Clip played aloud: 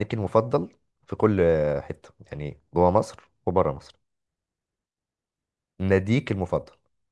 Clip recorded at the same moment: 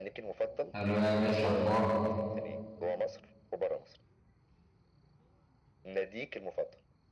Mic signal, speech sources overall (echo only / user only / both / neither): both